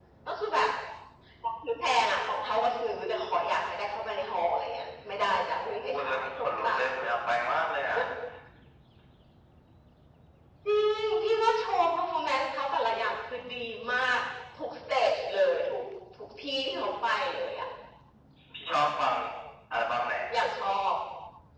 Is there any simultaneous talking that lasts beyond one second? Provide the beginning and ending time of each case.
5.7-7.1

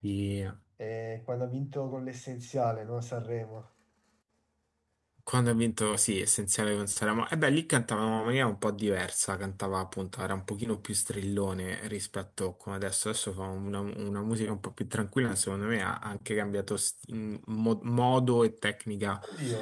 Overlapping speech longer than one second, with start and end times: none

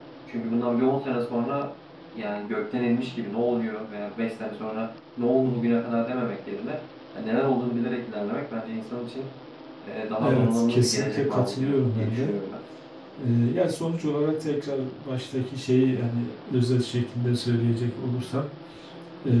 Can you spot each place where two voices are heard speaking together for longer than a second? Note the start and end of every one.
10.2-12.3

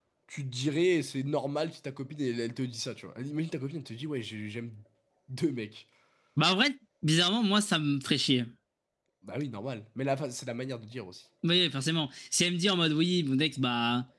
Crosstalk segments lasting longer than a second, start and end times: none

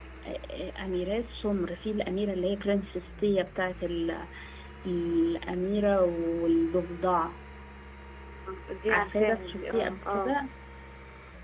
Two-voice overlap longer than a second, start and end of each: 8.9-10.3

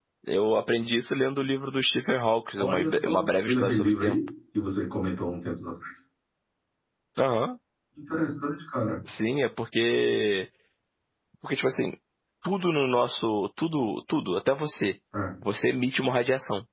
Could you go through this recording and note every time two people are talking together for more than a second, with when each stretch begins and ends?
2.6-4.2

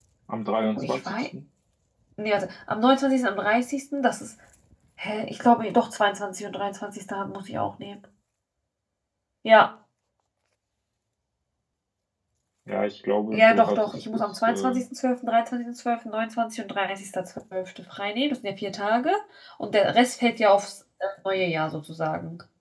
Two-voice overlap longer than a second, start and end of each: 13.3-14.7

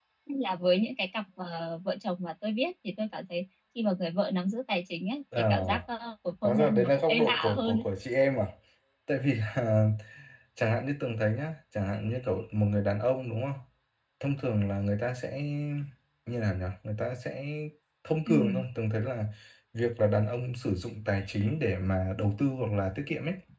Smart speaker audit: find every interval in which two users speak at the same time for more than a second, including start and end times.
6.4-7.8

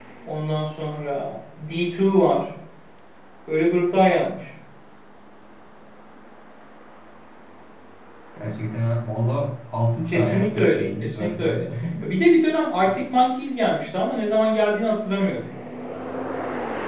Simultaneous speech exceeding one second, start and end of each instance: 10.1-11.6

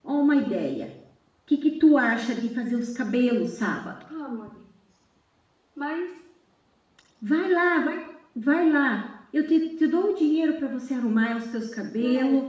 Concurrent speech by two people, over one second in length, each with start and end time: none

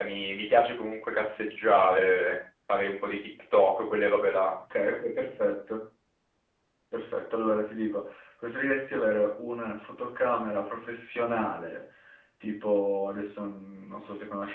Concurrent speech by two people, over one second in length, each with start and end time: none

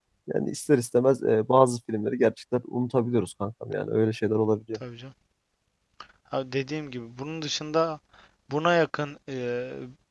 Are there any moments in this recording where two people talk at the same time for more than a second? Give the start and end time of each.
none

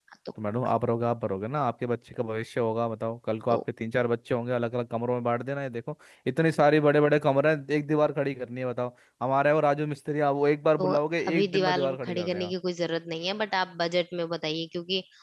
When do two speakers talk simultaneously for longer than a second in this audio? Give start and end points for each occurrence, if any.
11.3-12.5

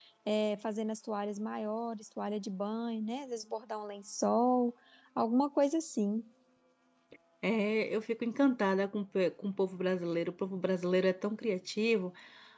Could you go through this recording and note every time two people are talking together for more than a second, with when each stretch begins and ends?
none

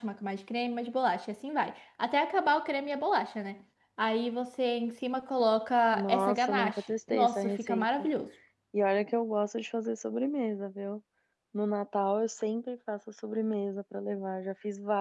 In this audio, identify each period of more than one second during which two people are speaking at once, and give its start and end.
5.9-7.9

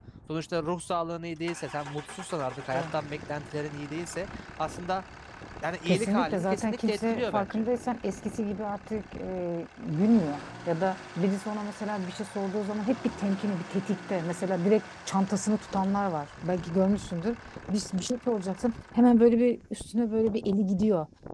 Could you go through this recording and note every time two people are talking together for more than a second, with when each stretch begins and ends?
5.8-7.7

